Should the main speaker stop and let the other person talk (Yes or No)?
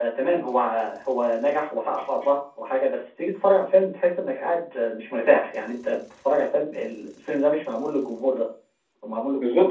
Yes